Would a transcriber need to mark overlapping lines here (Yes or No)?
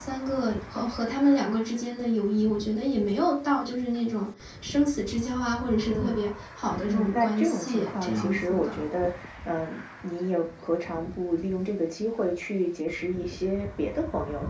Yes